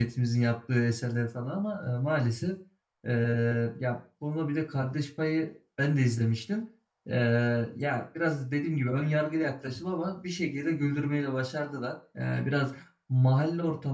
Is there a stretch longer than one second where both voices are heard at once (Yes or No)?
No